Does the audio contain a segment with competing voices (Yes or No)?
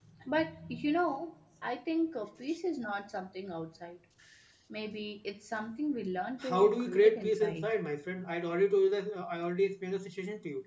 Yes